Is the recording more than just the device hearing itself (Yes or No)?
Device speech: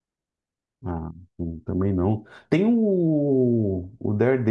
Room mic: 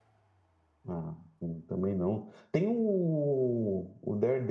No